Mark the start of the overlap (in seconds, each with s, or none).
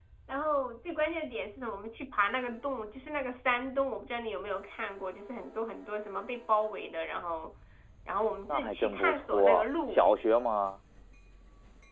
8.5 s